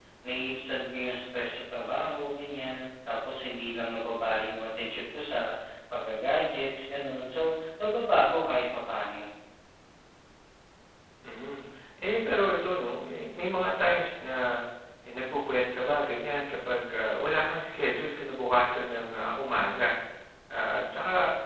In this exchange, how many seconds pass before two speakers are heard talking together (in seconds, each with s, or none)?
none